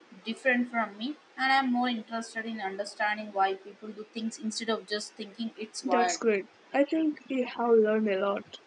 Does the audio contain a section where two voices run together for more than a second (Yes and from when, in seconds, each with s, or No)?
No